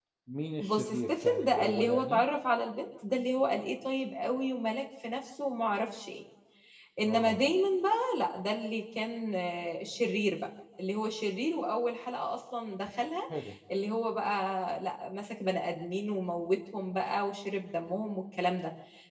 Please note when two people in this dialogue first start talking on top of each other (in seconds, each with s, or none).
0.6 s